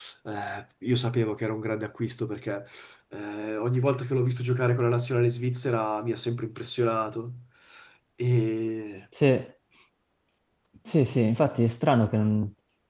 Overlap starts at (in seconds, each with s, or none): none